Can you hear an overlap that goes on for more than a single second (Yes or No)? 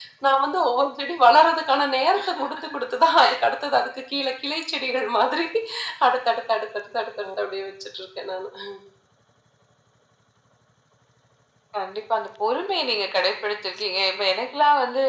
No